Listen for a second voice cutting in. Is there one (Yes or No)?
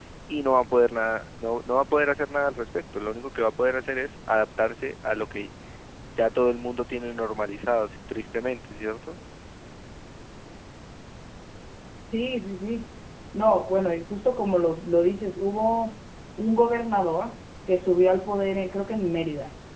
No